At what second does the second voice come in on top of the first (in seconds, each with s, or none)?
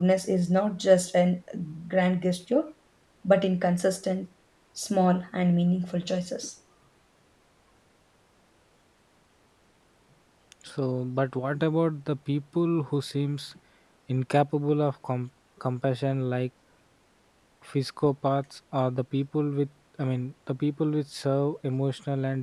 none